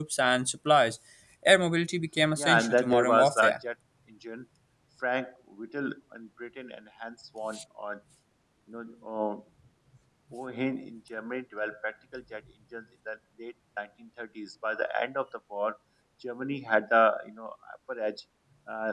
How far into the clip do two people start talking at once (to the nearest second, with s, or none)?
2 s